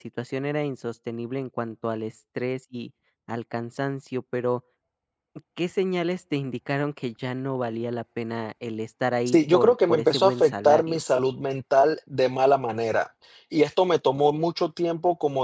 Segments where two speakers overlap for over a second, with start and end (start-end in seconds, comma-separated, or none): 9.3-11.0